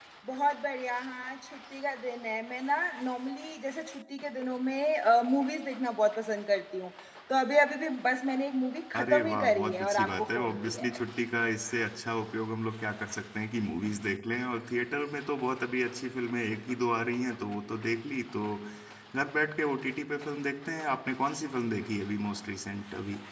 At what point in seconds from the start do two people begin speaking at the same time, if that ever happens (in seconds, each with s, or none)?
8.9 s